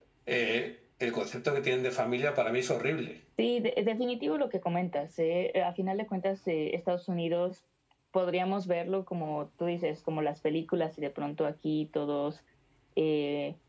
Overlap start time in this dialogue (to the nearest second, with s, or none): none